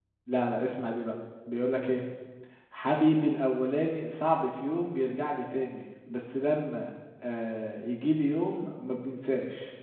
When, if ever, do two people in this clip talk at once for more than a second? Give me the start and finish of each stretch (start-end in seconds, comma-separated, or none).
none